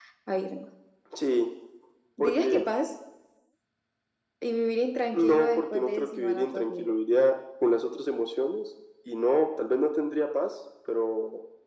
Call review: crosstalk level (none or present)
present